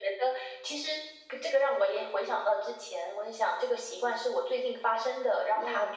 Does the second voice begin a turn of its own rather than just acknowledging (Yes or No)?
No